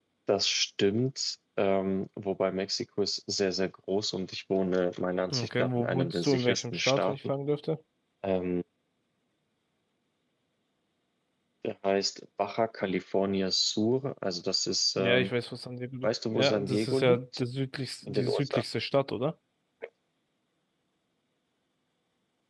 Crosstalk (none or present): present